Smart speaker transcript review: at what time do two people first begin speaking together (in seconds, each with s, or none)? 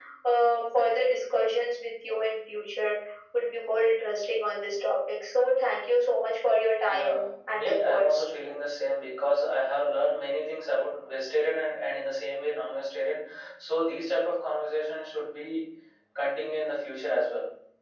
6.8 s